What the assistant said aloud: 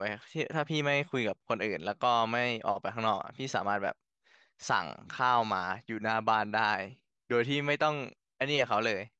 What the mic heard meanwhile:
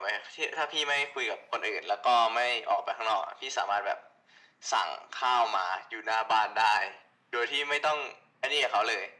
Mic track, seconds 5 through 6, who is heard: echo only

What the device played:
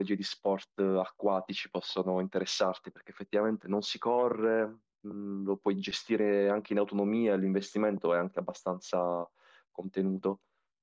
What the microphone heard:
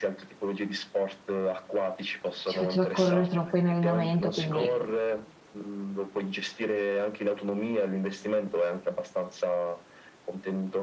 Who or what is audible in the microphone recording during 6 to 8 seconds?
echo only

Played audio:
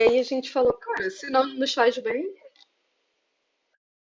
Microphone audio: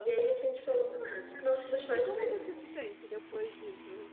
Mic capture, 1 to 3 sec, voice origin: both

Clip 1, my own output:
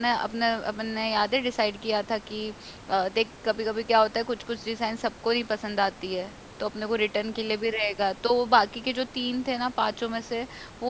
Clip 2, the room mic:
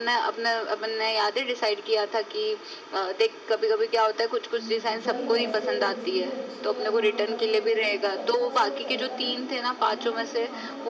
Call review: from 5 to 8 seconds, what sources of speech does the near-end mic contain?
both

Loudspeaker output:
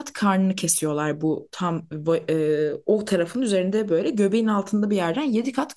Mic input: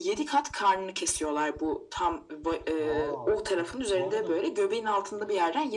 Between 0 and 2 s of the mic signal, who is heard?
echo only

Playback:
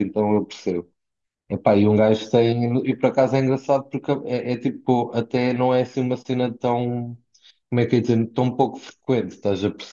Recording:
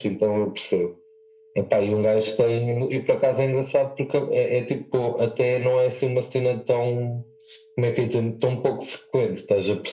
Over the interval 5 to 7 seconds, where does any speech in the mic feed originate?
echo only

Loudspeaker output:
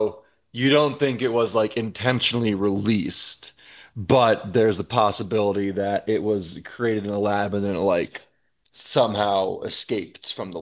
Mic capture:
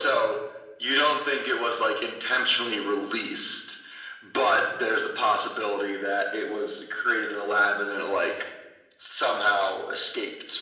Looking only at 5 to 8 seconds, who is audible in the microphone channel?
echo only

